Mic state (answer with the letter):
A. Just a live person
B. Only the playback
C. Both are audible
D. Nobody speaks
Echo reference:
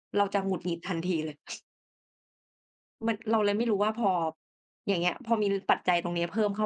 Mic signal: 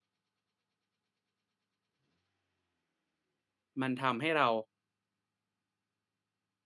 A